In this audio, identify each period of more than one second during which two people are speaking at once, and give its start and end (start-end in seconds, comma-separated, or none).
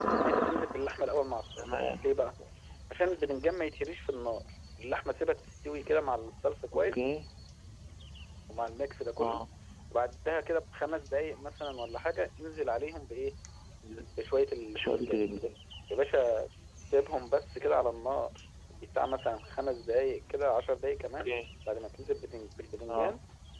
none